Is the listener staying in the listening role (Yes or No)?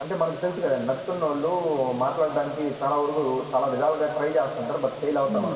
No